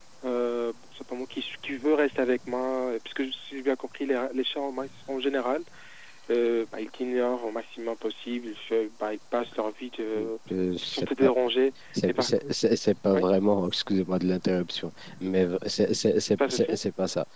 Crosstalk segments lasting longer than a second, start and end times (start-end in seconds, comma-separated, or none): none